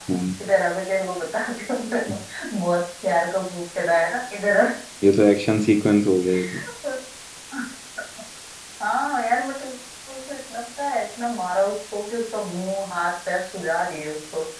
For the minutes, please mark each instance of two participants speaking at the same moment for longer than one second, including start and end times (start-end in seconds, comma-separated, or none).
none